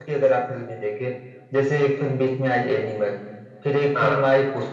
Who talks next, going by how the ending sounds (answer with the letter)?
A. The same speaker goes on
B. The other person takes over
A